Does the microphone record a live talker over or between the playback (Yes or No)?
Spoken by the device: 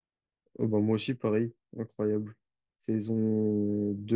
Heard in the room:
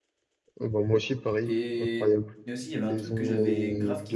Yes